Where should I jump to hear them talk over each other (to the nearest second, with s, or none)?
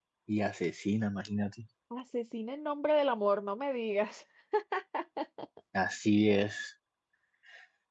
none